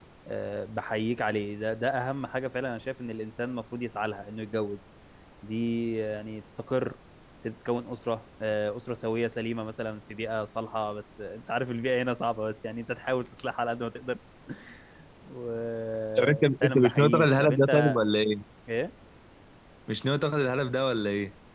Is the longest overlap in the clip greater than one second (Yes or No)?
Yes